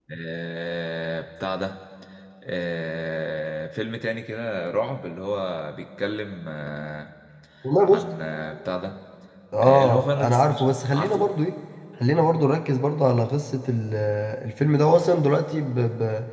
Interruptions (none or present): present